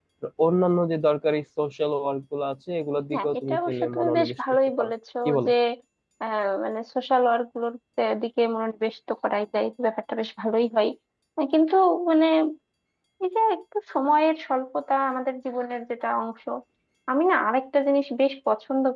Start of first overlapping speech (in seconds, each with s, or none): 3.1 s